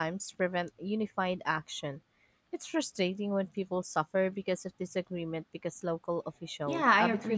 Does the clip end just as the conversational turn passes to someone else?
Yes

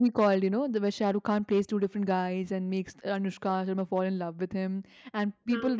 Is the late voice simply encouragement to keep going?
Yes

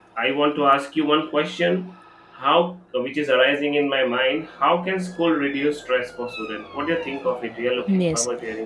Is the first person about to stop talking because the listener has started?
Yes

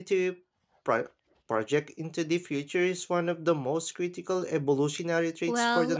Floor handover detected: Yes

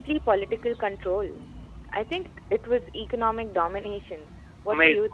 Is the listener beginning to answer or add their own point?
Yes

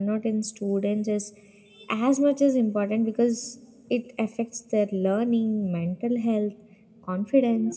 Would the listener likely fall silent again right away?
Yes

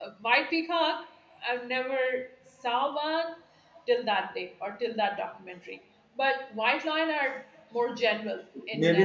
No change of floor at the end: No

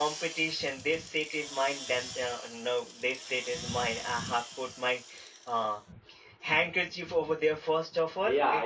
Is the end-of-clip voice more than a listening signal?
Yes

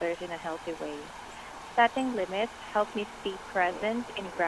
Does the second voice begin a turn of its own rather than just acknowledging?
Yes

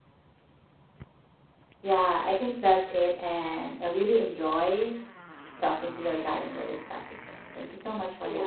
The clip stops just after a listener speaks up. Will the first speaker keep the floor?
No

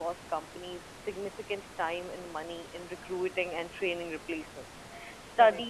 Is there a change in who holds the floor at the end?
No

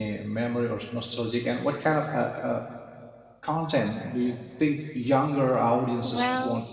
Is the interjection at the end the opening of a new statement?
Yes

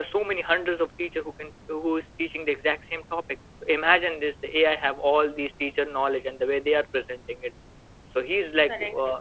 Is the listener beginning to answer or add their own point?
No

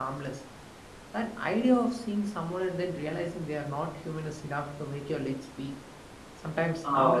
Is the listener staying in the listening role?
Yes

